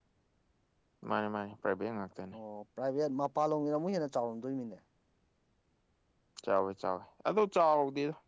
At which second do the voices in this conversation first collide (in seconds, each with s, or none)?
none